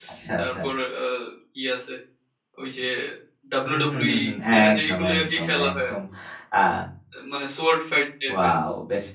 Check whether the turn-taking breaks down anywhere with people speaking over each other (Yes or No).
Yes